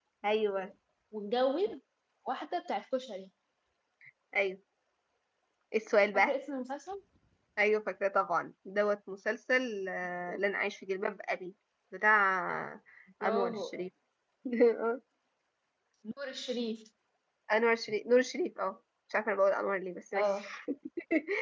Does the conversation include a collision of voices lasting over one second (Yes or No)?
No